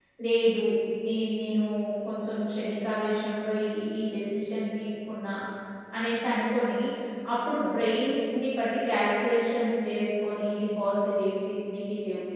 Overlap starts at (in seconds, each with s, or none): none